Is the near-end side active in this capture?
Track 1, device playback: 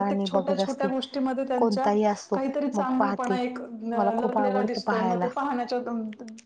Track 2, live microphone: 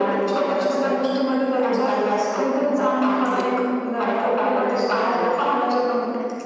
No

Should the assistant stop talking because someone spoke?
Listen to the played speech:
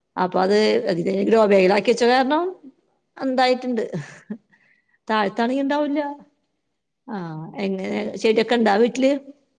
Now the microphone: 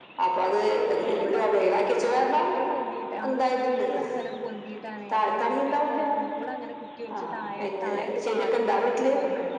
Yes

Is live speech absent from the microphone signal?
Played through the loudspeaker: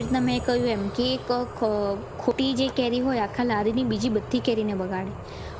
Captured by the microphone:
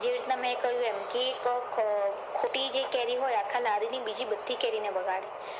Yes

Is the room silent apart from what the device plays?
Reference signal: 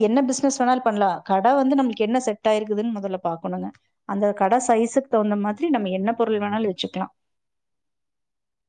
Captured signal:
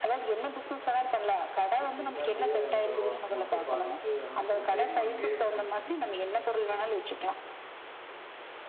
No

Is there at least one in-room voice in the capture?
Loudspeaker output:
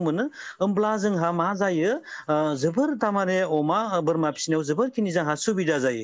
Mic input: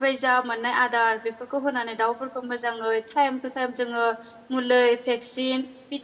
Yes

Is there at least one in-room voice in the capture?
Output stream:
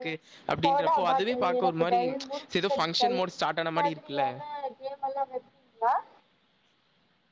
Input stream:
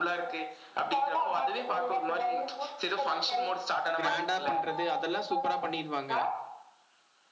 Yes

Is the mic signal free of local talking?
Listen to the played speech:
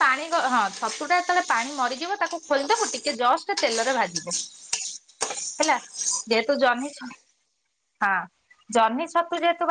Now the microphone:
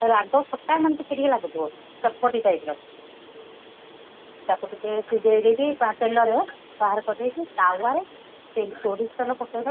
No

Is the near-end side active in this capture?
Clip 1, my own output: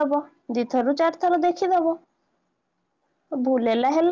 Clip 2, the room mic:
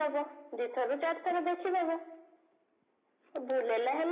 No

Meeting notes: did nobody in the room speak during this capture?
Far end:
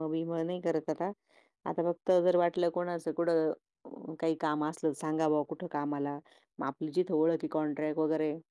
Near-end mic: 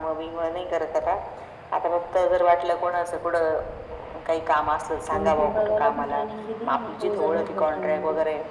No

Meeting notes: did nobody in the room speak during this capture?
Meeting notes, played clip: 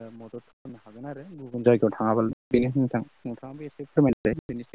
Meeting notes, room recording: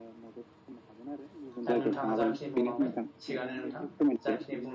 No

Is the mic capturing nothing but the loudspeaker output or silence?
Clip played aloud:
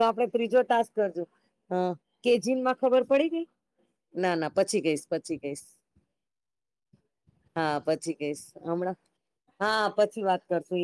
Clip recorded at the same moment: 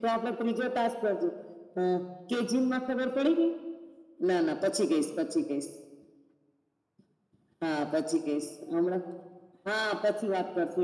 Yes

